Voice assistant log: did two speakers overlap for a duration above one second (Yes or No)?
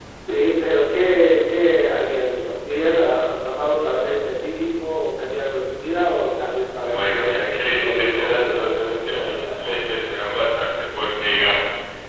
Yes